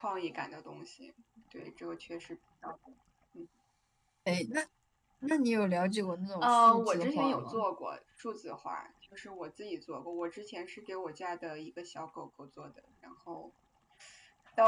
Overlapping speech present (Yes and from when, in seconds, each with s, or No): Yes, from 6.4 s